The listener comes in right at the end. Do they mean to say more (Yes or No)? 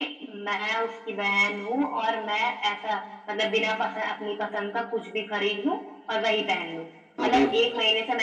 No